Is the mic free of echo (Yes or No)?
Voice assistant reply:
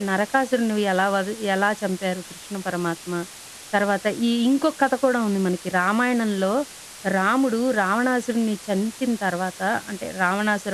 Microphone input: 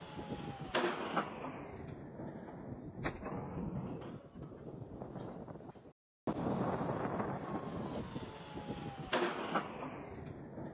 Yes